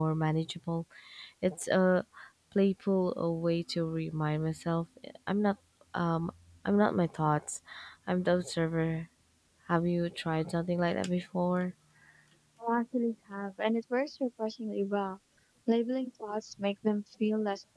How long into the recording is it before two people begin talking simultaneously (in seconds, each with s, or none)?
none